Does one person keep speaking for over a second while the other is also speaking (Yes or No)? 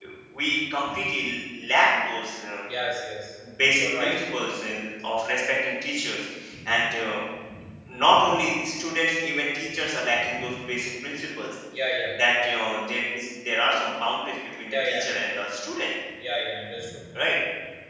No